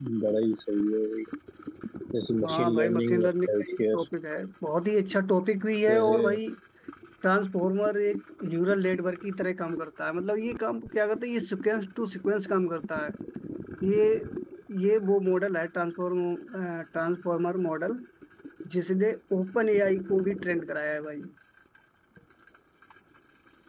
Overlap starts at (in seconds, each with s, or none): 2.4 s